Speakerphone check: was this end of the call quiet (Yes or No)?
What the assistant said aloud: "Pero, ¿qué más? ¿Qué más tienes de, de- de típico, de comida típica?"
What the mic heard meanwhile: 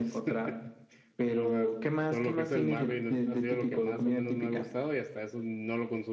No